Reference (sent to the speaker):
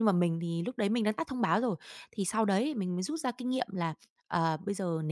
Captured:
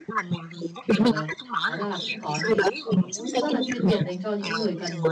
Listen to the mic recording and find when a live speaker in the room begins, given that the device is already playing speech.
0.5 s

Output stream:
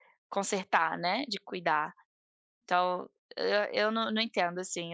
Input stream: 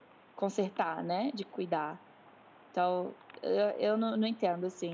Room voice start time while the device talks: none

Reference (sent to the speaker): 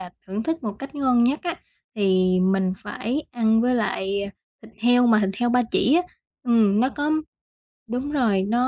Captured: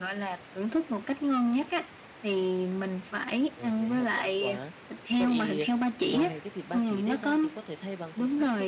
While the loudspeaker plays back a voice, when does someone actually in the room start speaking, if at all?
3.5 s

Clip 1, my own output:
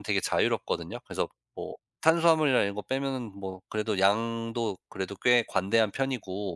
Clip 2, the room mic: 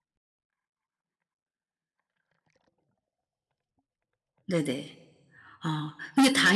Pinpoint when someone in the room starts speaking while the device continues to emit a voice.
4.5 s

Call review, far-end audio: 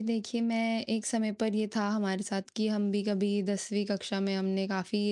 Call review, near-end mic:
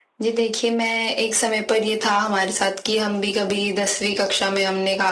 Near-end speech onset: none

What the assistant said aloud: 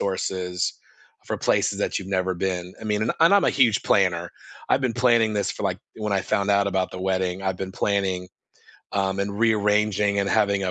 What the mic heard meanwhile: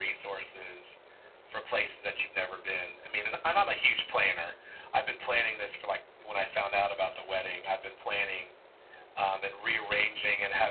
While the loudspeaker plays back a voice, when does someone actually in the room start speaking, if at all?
none

